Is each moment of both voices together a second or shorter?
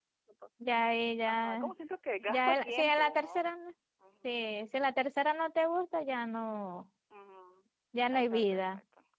No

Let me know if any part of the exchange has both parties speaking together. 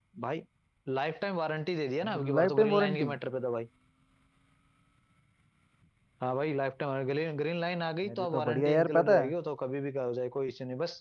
Yes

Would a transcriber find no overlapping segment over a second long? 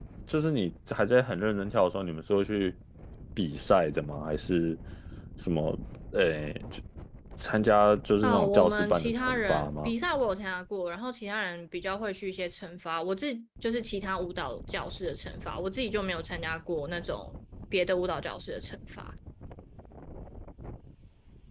No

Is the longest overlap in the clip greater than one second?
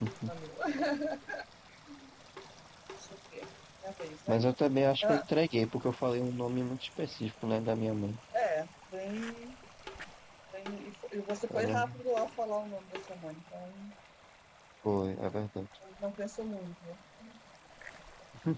No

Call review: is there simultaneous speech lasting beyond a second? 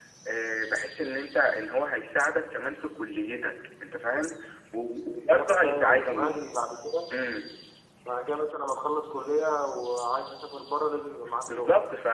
Yes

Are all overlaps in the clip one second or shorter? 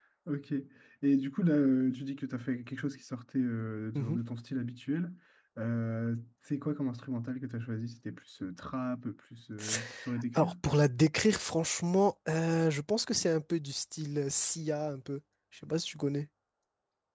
Yes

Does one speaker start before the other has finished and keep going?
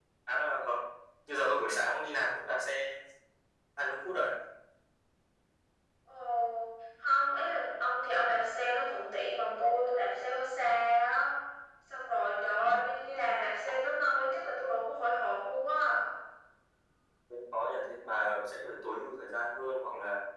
No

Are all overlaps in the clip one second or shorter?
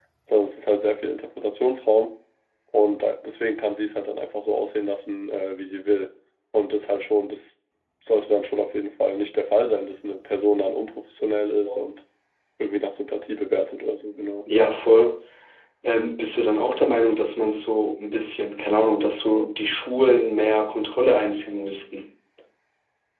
Yes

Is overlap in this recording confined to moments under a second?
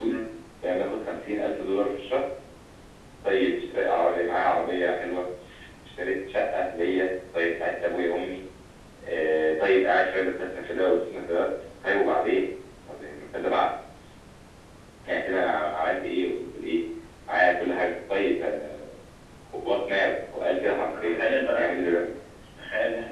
No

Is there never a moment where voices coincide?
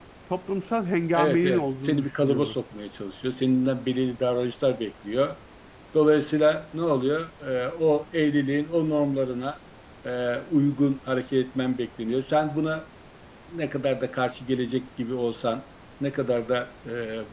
No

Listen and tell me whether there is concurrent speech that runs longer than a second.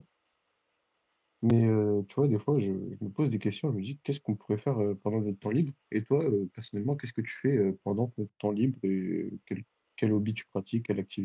No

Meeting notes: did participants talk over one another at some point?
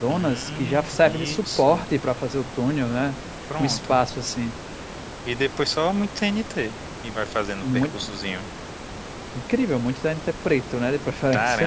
Yes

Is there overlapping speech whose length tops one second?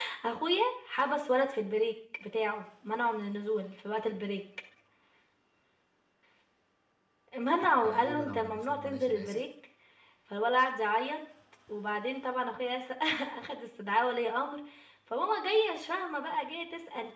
Yes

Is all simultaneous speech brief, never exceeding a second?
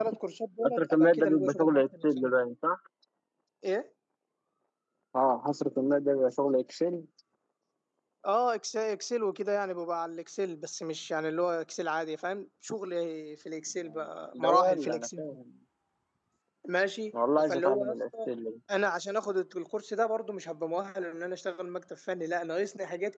No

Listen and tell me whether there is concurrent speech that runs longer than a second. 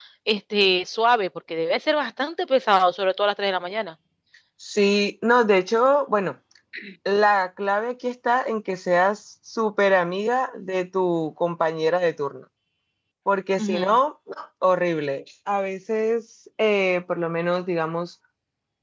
No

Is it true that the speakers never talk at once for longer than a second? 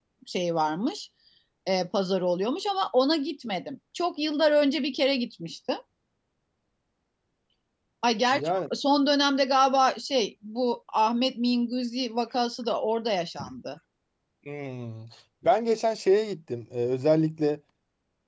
Yes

